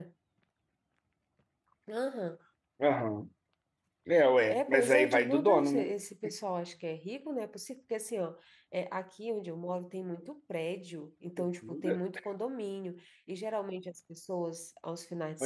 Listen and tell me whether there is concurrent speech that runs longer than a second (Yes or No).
Yes